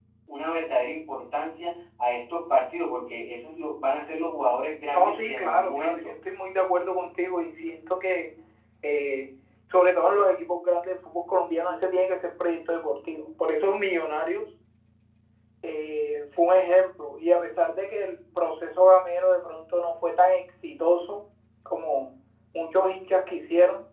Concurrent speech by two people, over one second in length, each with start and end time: 4.9-6.1

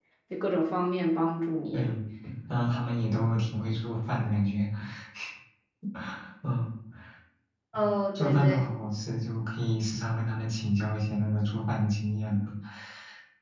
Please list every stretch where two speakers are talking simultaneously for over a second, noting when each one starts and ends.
none

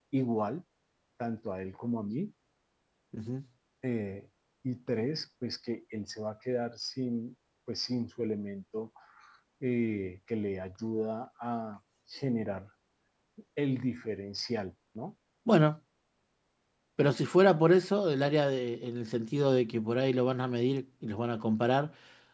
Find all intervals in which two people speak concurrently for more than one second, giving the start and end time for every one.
none

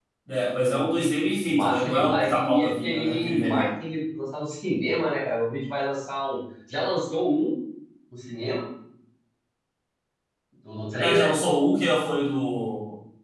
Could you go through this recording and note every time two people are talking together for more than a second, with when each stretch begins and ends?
1.4-3.7

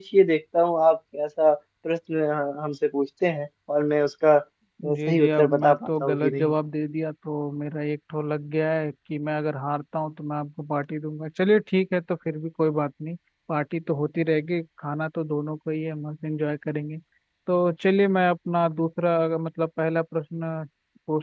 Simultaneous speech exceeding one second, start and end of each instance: 5.0-6.5

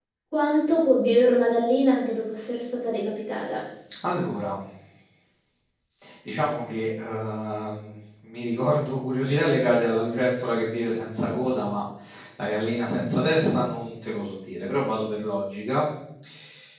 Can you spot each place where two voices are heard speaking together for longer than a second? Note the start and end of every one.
none

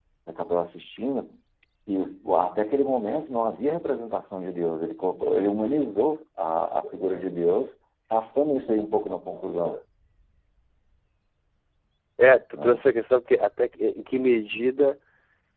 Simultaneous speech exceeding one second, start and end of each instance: none

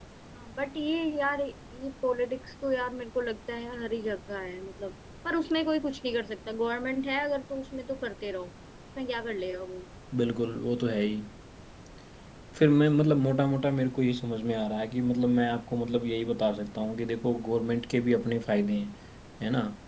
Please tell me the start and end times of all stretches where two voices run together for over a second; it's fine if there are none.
none

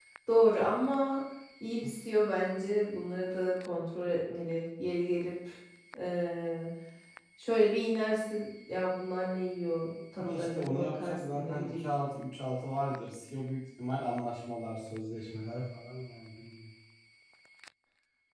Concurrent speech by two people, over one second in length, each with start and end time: 10.2-11.8

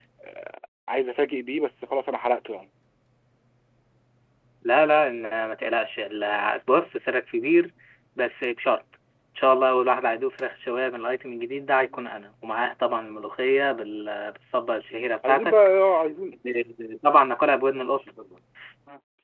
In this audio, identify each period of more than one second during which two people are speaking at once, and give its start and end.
none

